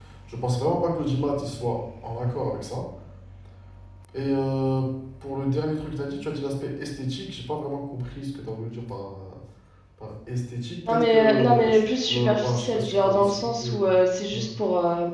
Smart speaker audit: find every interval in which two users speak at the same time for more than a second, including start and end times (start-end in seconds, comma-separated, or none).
10.9-13.8